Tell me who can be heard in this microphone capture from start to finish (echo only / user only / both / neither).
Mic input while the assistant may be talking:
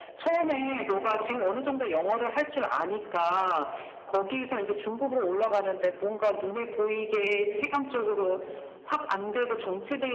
echo only